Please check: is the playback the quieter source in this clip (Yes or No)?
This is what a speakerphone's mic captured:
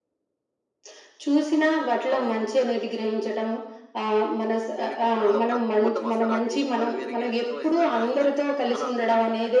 No